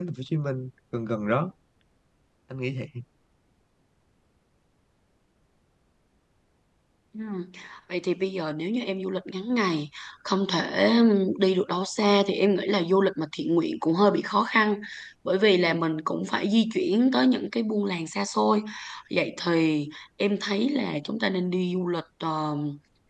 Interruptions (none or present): none